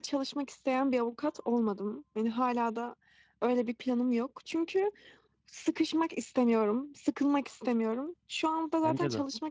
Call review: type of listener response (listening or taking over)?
listening